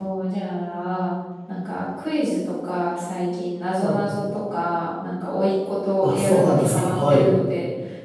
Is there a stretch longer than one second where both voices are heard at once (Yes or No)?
Yes